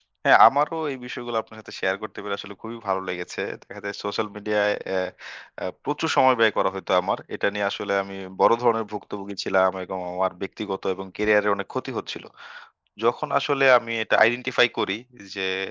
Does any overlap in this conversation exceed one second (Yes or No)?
No